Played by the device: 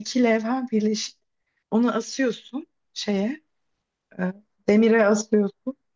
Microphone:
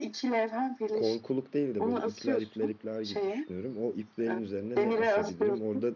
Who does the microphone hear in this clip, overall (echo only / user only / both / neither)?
both